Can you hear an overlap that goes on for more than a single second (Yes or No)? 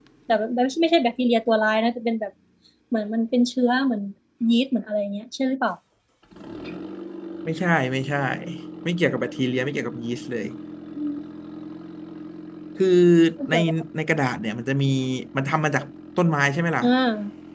No